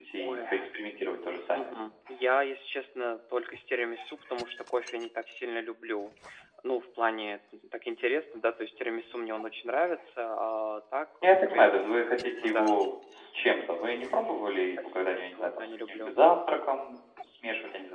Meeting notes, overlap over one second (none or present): present